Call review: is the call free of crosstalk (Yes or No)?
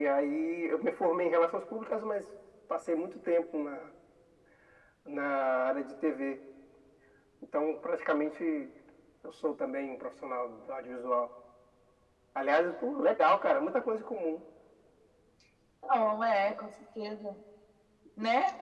Yes